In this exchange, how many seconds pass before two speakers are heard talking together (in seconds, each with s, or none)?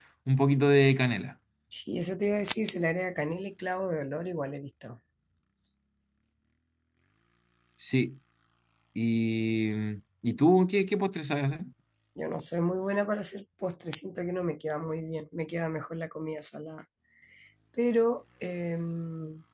none